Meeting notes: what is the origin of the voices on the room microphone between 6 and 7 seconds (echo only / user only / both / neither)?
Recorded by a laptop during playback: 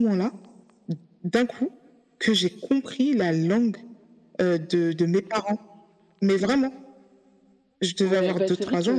echo only